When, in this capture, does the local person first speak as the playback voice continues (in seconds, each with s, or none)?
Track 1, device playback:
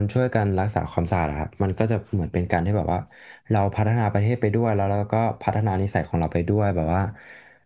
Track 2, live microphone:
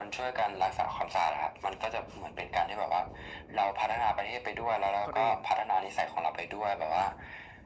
5.0 s